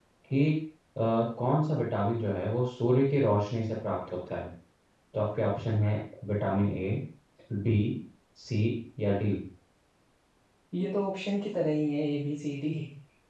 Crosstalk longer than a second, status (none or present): none